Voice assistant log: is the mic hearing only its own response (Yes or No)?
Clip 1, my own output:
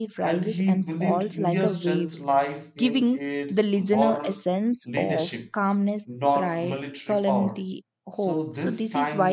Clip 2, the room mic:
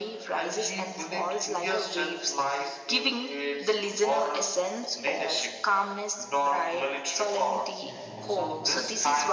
No